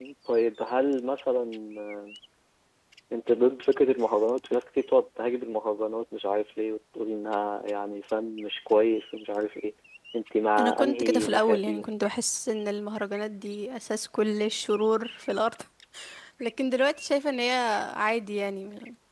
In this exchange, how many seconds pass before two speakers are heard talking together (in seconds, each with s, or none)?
10.6 s